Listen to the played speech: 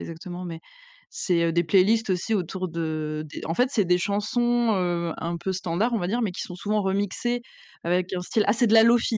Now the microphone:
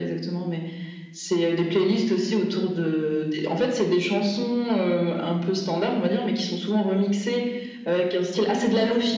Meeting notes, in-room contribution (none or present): none